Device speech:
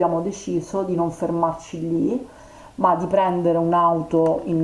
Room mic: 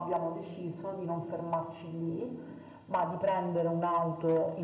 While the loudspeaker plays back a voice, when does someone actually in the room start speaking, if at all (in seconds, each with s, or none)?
none